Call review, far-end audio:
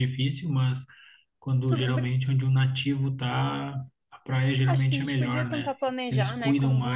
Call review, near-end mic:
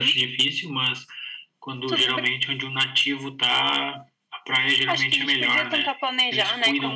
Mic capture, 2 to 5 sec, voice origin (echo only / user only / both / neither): echo only